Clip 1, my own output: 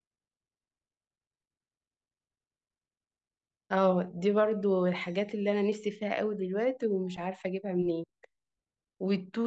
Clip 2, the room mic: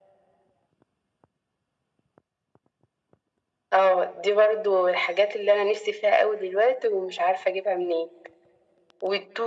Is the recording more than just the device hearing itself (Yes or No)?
No